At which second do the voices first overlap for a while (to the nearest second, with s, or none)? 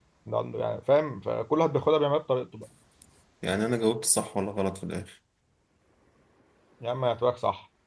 none